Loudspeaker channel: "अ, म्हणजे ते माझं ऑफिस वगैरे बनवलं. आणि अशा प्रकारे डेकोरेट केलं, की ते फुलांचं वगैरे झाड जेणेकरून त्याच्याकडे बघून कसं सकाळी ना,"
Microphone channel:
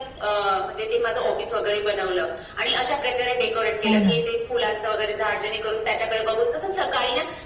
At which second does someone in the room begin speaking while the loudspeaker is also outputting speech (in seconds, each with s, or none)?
3.8 s